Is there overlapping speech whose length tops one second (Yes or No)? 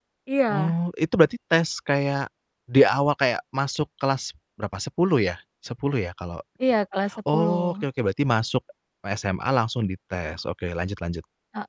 No